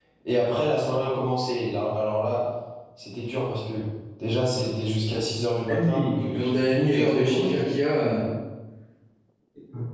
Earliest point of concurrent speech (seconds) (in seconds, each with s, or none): 5.7 s